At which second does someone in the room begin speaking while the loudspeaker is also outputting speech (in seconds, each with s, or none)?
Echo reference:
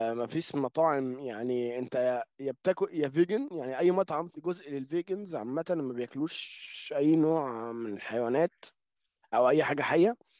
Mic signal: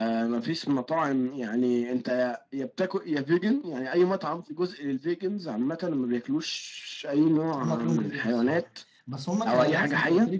7.6 s